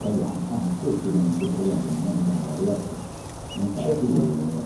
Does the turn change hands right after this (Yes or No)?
No